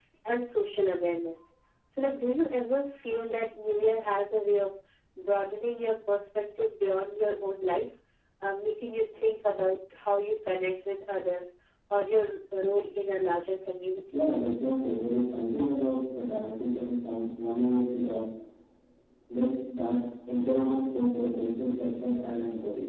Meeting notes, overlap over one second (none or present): none